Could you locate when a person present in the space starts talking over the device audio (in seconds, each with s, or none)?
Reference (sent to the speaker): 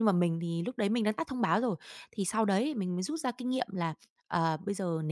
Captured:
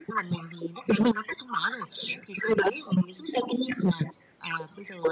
none